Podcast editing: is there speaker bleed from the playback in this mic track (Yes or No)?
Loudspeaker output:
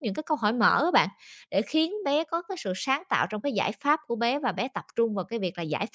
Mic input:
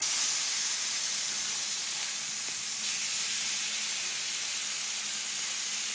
No